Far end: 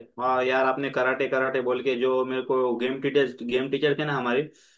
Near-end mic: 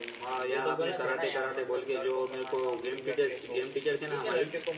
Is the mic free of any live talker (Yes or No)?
No